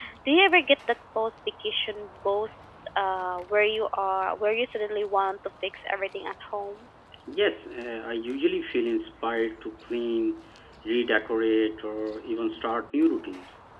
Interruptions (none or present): none